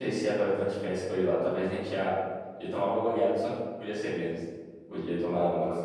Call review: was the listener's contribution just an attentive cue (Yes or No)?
No